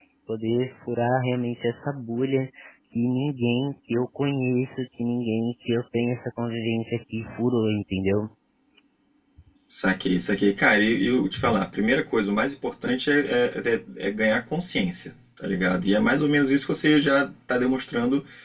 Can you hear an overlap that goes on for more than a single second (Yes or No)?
No